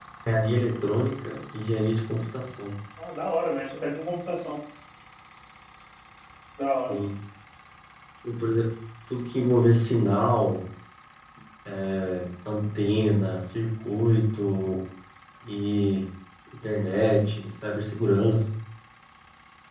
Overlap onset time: none

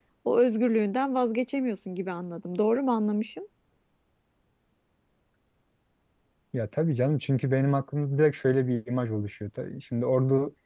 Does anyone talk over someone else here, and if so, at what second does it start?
none

